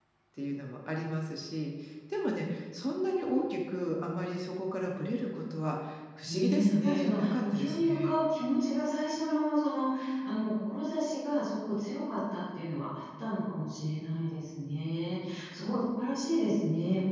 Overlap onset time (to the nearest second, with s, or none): 6 s